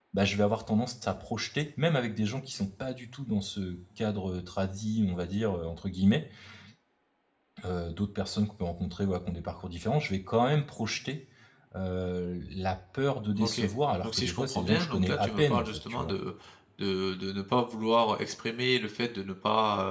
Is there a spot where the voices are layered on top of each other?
Yes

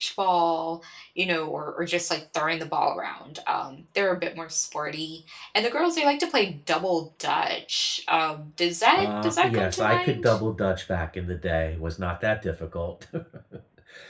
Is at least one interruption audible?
Yes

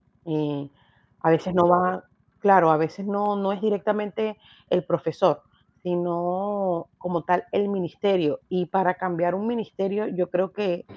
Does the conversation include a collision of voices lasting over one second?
No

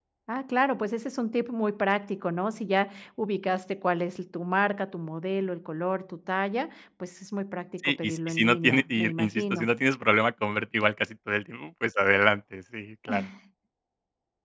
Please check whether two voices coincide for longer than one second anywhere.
Yes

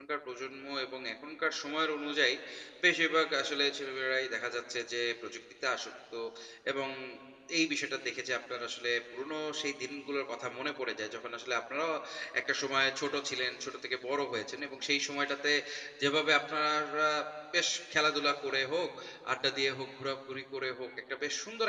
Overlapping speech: No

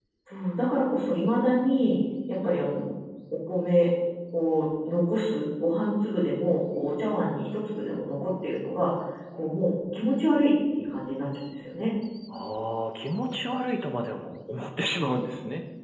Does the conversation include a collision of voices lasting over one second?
No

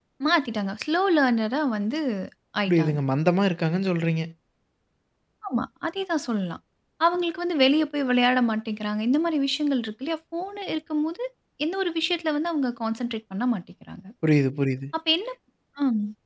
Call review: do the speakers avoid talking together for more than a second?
Yes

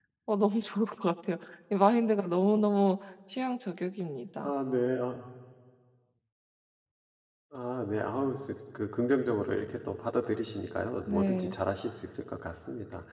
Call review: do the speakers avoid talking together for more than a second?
Yes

